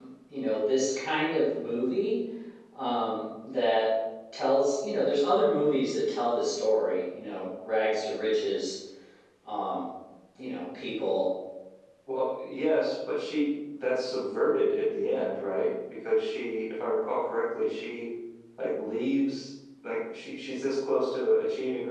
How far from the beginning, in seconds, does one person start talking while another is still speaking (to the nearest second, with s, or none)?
none